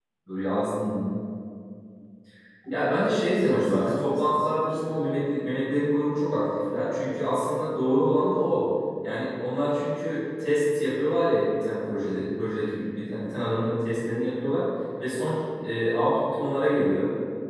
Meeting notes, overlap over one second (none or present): present